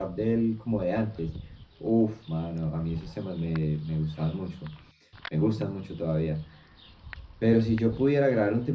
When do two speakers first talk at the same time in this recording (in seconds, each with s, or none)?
none